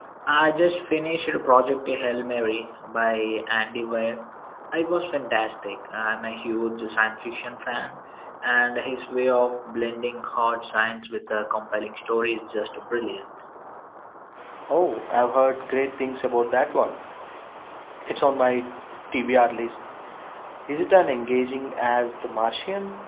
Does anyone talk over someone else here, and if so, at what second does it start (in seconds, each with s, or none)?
none